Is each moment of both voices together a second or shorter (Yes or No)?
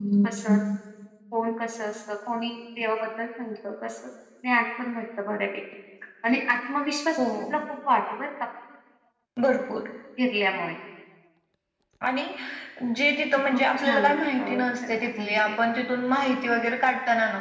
No